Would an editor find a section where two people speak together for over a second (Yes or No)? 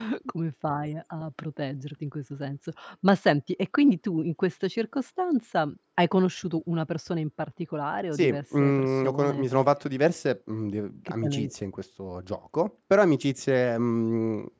Yes